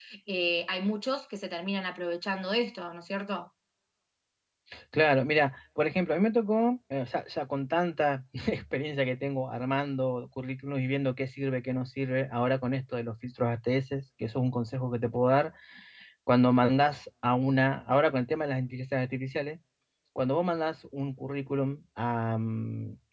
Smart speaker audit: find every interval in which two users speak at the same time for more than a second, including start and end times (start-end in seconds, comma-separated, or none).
none